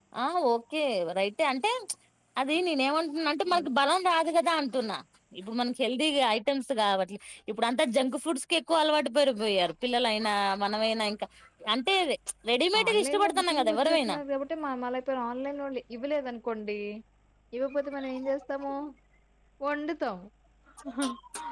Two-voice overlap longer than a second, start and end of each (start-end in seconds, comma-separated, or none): 12.8-14.2